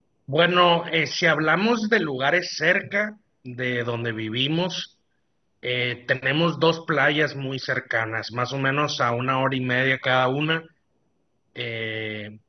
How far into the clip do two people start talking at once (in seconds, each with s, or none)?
none